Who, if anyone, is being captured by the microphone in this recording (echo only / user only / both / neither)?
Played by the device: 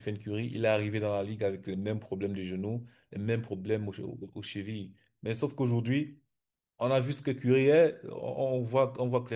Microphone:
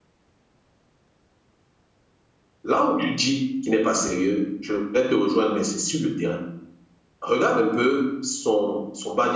user only